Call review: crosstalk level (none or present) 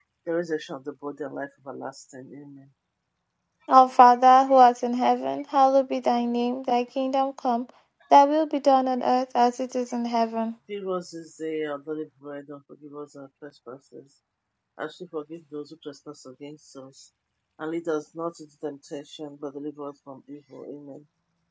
none